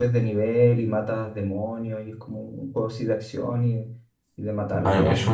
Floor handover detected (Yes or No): Yes